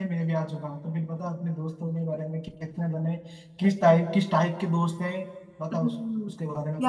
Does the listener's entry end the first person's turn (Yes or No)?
Yes